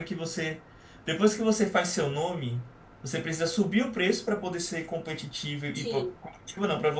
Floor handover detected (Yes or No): No